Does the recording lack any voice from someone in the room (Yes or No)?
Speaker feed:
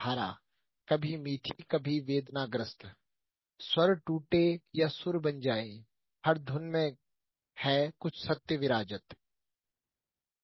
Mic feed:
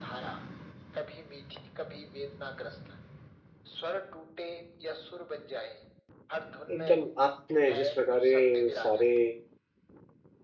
No